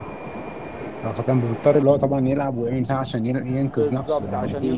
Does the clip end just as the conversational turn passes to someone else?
Yes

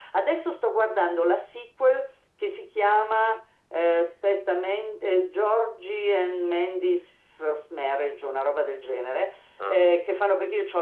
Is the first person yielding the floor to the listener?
No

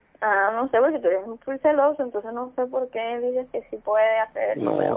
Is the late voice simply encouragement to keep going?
No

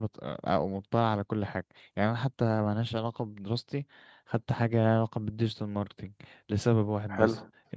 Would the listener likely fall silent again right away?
Yes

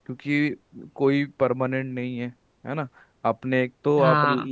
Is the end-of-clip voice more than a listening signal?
No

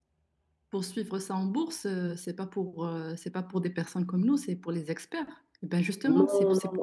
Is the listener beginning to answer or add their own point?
Yes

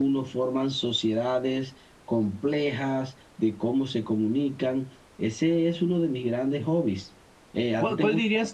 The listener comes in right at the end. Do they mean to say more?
Yes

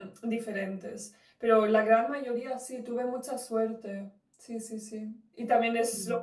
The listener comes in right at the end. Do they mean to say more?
No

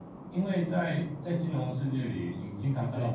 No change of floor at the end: Yes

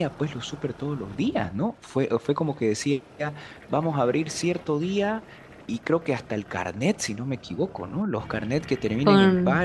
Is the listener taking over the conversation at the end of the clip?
No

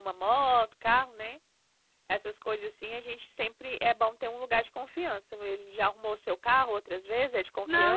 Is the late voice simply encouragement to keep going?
No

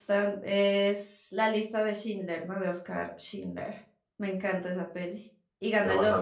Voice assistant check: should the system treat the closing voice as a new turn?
Yes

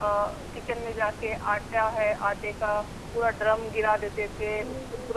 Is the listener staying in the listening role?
Yes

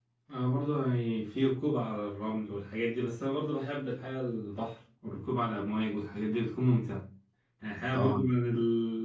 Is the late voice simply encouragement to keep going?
Yes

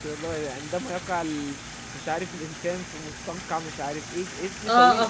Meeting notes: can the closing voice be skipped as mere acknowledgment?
No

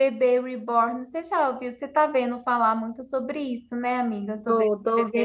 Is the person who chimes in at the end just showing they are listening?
No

